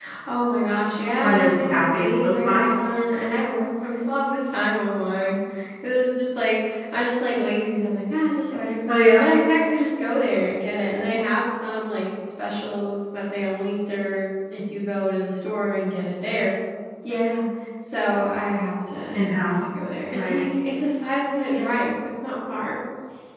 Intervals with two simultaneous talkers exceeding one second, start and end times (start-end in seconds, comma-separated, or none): 1.2-2.7